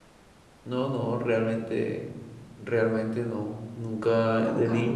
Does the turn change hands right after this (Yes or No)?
No